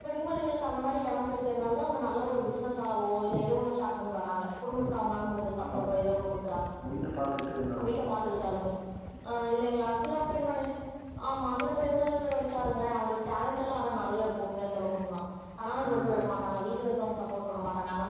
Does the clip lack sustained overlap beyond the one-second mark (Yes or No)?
Yes